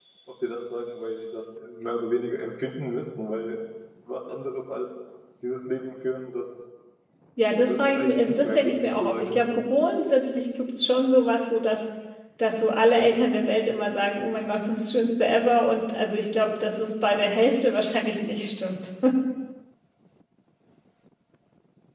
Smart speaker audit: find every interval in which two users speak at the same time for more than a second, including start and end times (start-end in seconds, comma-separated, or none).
7.6-9.4